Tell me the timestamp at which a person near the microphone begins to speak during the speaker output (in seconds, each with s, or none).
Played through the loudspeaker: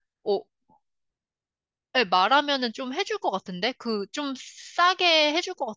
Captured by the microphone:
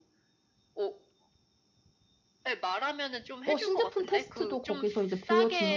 3.4 s